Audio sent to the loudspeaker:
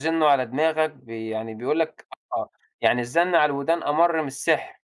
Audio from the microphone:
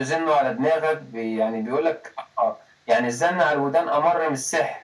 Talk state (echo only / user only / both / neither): echo only